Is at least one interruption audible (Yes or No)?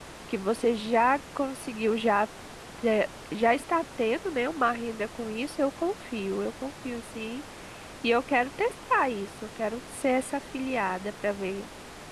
No